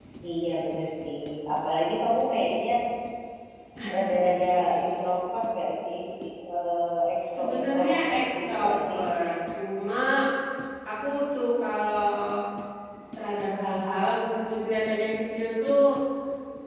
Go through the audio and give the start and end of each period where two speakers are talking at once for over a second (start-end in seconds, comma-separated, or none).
7.3-9.0